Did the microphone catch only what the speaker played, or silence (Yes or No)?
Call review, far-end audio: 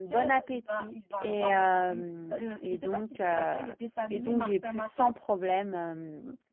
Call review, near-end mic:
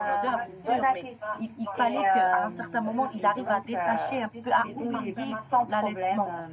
No